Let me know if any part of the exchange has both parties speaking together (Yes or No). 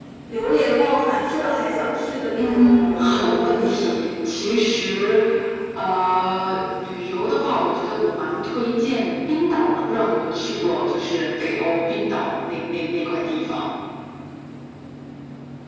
Yes